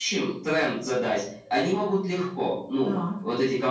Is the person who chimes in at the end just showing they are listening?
Yes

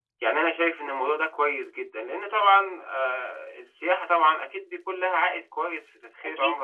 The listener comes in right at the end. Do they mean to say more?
Yes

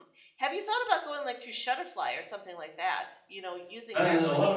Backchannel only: No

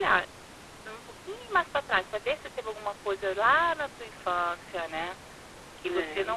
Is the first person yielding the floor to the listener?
No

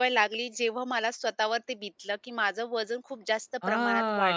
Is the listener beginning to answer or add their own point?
Yes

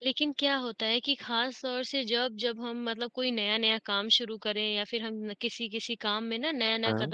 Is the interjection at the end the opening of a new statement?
No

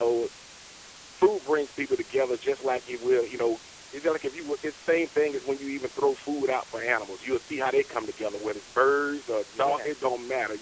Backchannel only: Yes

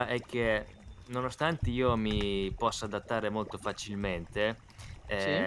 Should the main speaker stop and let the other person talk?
No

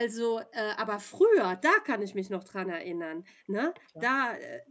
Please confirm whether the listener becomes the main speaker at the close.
No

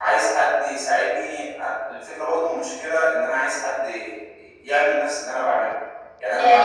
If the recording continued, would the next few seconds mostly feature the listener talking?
No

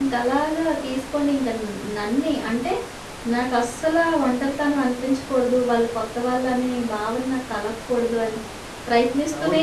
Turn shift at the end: Yes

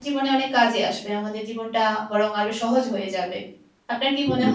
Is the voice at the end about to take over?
Yes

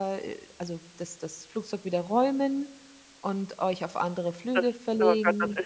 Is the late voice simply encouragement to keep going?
No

